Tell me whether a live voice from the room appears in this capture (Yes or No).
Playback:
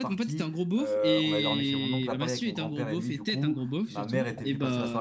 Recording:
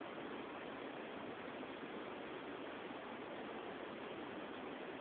No